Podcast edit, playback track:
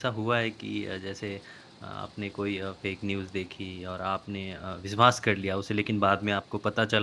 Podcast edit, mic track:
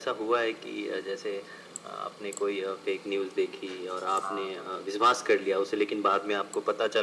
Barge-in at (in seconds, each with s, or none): 4.2 s